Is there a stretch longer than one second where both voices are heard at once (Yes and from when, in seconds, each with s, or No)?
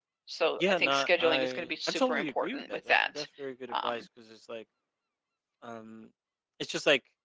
Yes, from 0.6 s